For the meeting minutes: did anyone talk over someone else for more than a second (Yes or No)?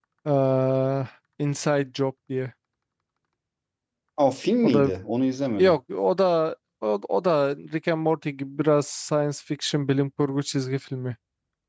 No